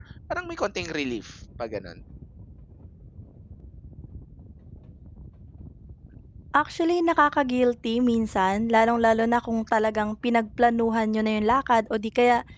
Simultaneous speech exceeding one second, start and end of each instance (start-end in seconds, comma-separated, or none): none